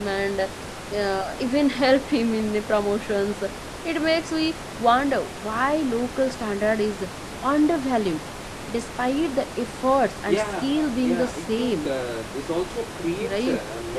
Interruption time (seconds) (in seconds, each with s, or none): 10.3 s